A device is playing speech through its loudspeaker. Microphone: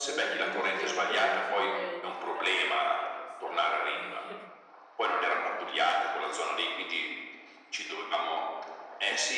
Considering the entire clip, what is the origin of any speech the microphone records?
both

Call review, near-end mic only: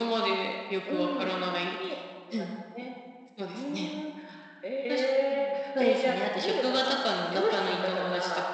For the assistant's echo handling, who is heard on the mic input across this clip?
echo only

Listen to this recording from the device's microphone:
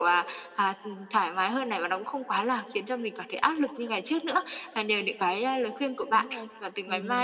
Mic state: both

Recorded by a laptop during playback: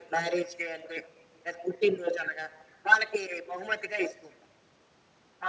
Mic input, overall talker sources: echo only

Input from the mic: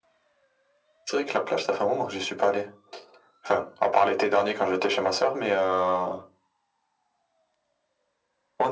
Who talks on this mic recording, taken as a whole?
echo only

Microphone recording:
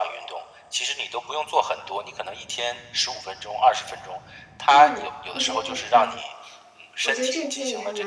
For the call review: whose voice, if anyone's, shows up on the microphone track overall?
both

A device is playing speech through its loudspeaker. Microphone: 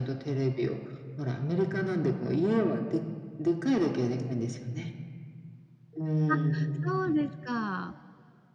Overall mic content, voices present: both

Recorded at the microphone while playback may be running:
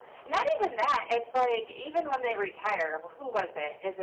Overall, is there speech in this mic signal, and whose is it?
echo only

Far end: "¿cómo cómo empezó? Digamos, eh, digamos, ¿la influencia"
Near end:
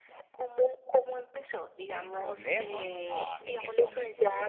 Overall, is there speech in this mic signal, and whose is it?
both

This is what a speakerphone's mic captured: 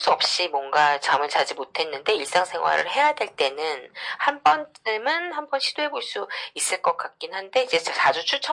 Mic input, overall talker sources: echo only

